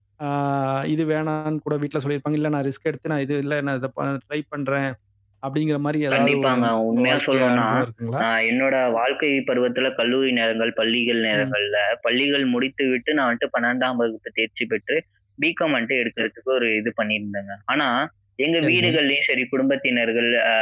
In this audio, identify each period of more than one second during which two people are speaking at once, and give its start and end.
6.1-7.7

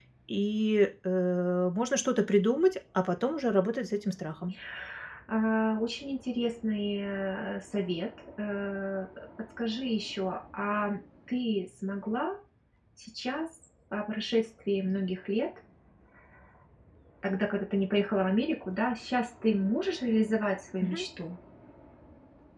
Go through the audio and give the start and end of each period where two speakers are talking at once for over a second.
none

